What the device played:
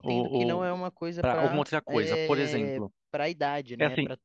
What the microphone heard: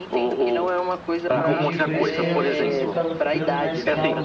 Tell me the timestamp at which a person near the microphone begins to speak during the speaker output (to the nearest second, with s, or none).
1 s